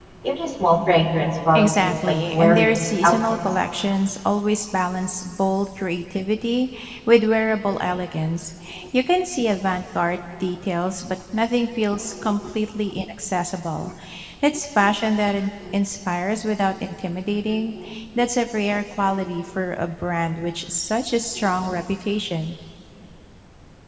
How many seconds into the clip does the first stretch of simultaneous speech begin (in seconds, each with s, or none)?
1.6 s